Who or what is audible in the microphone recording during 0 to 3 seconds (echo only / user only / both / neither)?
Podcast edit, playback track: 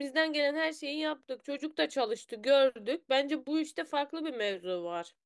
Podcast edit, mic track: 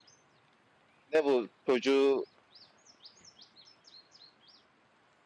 user only